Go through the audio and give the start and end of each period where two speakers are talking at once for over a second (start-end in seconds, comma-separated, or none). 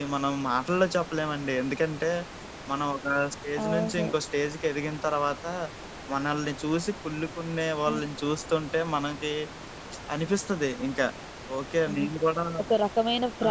none